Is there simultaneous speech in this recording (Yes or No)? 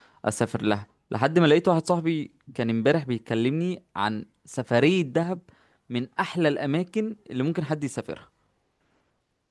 No